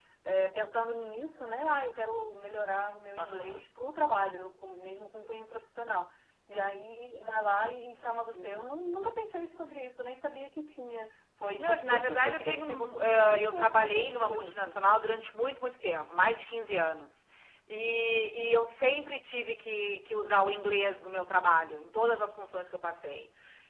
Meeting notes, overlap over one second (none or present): present